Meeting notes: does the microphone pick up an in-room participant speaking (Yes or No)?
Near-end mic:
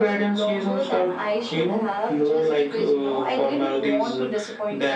No